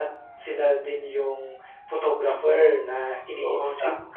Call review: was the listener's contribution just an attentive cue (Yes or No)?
No